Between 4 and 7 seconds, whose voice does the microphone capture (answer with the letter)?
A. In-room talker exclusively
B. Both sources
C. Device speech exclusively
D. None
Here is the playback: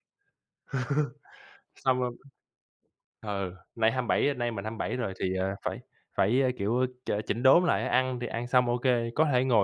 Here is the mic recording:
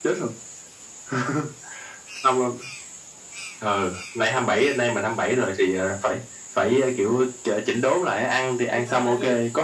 C